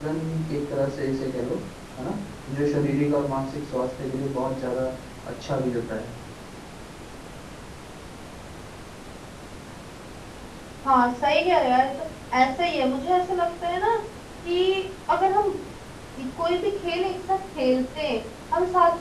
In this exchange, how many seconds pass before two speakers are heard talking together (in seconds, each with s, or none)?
none